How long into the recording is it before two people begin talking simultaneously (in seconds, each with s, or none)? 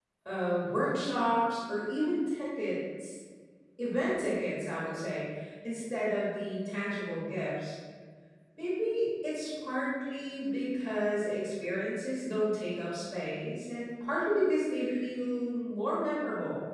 none